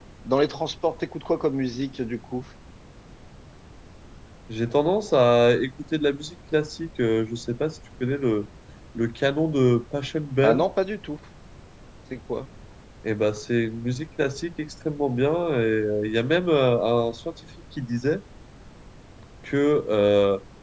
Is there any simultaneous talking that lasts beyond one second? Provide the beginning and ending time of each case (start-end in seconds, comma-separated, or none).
none